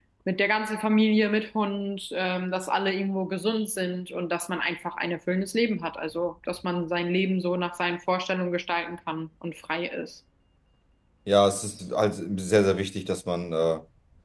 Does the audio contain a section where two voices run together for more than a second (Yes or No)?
No